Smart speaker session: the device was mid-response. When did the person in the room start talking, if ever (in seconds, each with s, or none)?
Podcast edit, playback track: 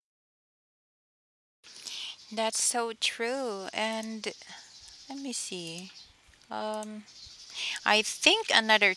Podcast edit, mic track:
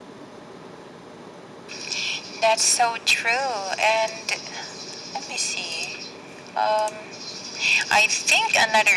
none